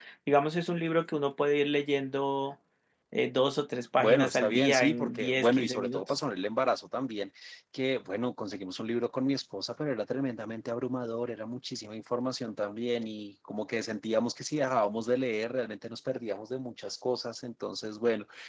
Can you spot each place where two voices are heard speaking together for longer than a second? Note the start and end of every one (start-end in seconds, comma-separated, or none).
4.0-6.0